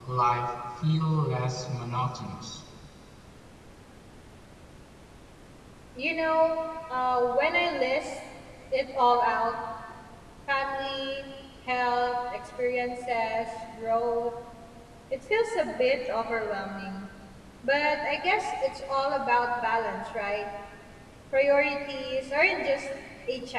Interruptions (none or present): none